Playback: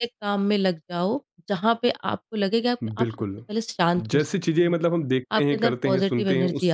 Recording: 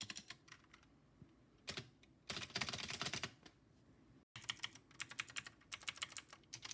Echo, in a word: none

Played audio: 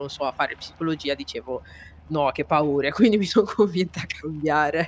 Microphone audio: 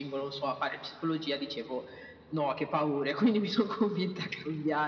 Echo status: present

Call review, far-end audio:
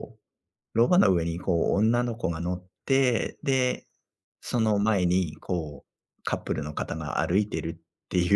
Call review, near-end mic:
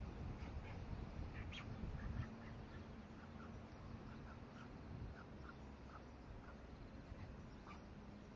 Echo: none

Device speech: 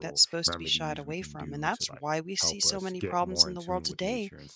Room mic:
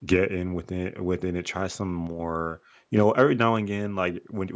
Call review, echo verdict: none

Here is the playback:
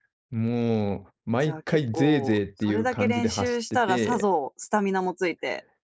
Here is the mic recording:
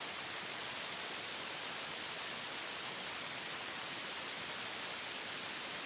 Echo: none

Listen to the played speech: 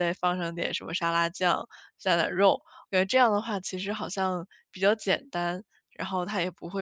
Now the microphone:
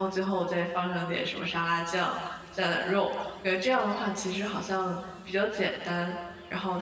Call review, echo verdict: present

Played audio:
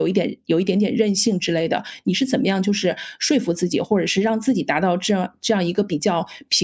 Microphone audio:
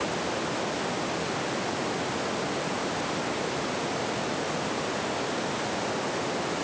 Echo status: none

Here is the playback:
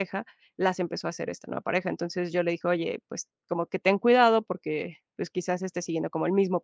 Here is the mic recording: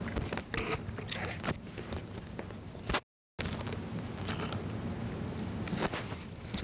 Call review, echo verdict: none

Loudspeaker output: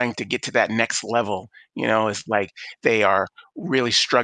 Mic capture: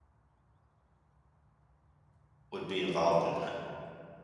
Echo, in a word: none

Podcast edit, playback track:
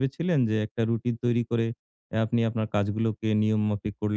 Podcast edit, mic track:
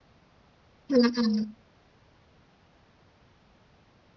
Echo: none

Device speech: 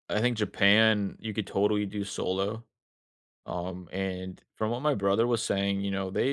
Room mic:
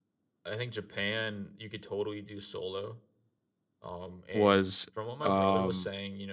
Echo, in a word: present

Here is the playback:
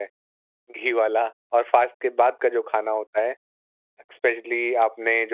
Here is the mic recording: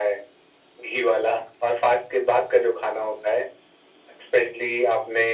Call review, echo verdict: present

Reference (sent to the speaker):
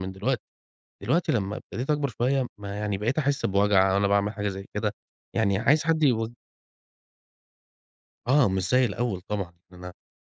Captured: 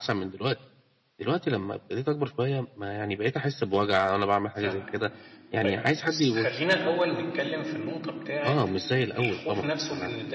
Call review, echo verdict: present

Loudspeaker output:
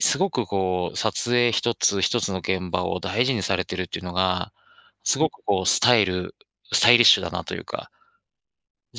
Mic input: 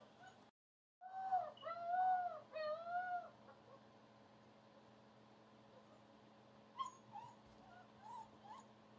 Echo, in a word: none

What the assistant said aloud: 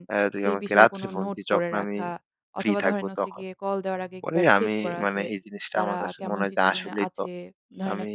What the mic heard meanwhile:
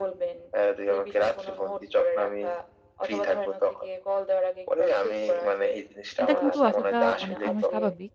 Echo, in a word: present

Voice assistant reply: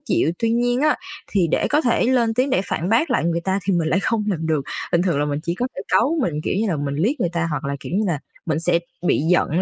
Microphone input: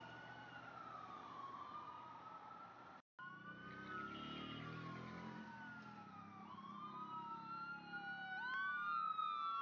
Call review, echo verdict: none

